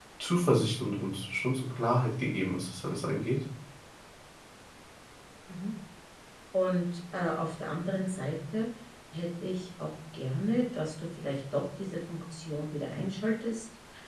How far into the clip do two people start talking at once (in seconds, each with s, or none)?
none